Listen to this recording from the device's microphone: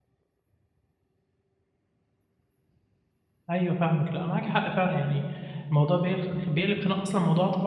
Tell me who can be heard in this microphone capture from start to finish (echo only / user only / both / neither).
user only